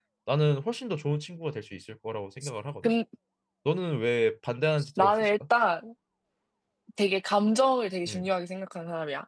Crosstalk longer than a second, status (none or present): none